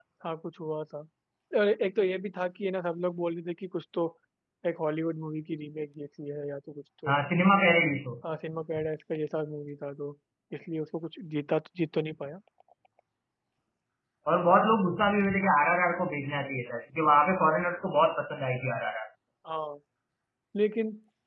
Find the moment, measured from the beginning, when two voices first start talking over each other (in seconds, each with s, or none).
none